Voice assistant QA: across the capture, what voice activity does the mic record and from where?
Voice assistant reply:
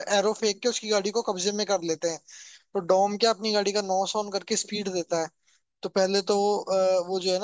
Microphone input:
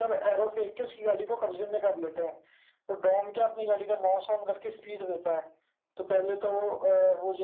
echo only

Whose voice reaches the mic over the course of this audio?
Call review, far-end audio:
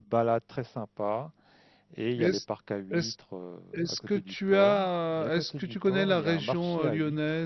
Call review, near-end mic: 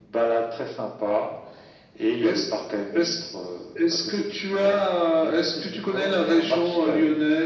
echo only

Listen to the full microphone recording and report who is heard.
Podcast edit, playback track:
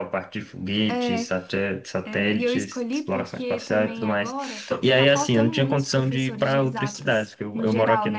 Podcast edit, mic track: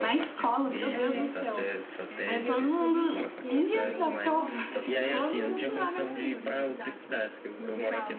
both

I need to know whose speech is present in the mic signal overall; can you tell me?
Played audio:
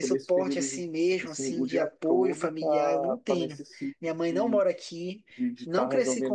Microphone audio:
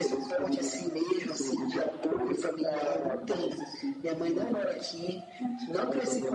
echo only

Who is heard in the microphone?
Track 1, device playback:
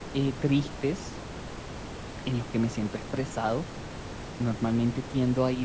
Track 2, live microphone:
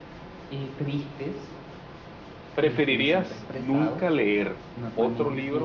both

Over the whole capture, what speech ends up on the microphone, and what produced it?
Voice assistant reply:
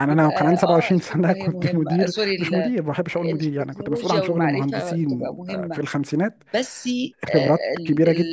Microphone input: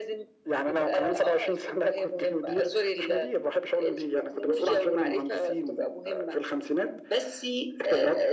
echo only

